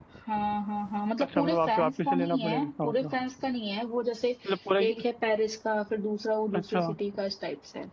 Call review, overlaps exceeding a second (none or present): present